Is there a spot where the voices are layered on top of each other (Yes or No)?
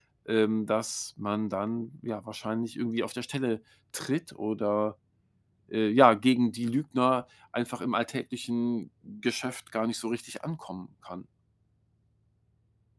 No